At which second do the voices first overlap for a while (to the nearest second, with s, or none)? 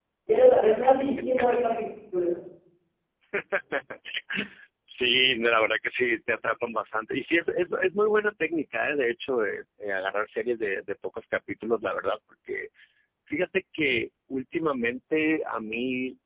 none